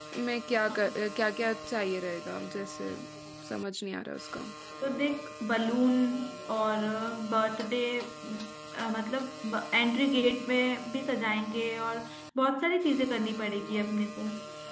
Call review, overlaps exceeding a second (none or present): none